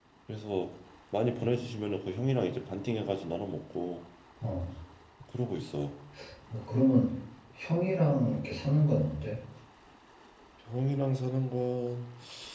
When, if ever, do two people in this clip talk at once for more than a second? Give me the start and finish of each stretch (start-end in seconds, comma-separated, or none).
none